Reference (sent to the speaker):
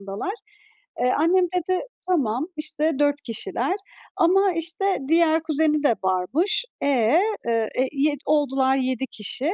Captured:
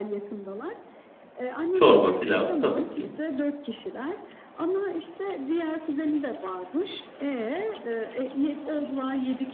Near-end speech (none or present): present